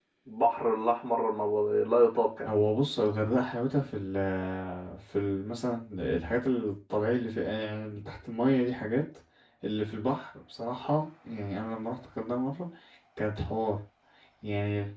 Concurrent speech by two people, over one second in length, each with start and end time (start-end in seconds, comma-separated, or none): none